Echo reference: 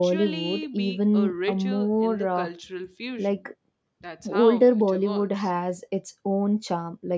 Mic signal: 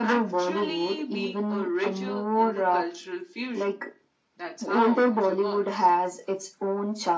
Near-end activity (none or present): none